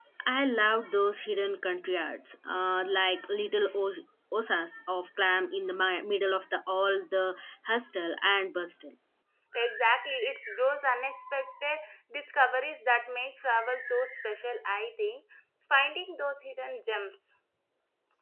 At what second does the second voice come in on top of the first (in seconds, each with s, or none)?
none